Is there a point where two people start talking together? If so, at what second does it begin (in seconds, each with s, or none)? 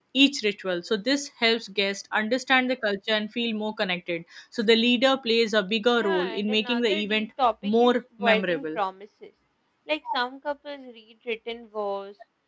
6.0 s